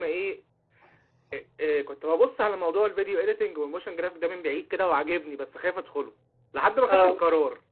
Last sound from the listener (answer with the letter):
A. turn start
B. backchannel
B